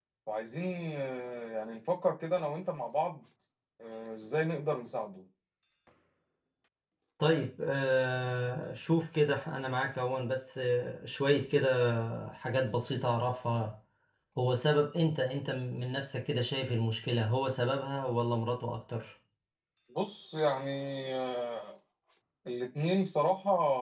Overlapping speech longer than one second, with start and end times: none

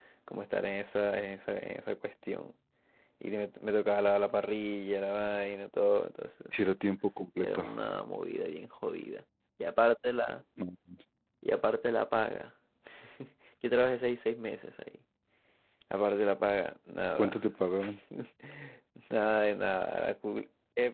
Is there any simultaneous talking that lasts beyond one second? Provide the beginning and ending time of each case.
none

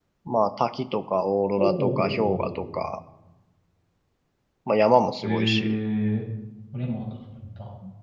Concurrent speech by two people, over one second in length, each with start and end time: 1.6-2.8

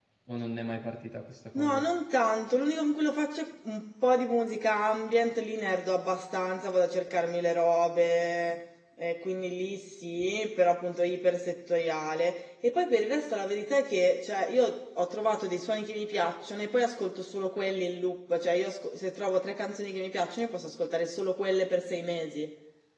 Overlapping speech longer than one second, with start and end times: none

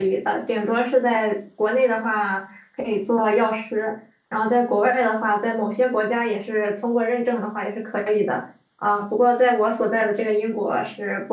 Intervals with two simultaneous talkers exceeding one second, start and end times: none

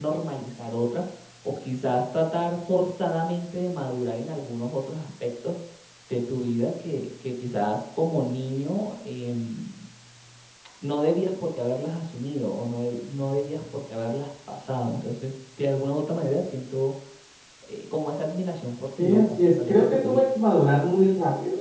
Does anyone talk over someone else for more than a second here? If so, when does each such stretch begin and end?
19.0-20.2

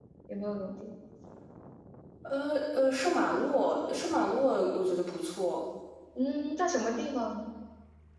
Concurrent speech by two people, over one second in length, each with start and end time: none

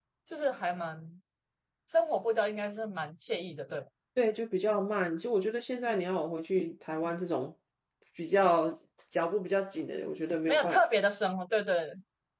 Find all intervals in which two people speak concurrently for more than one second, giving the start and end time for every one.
none

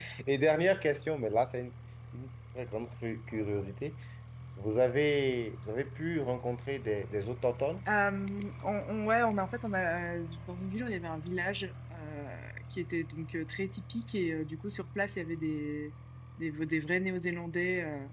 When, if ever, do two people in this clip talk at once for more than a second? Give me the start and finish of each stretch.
none

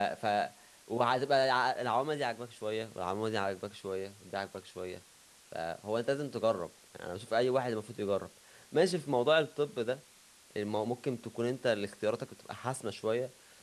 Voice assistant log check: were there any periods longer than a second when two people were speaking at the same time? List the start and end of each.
none

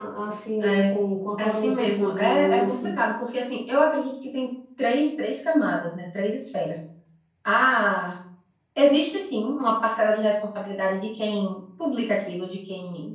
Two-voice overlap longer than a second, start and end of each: 1.4-2.9

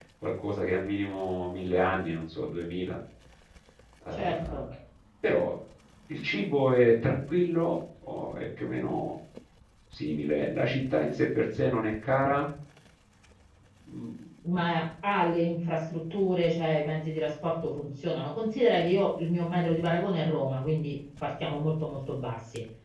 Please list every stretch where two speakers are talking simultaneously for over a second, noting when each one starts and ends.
none

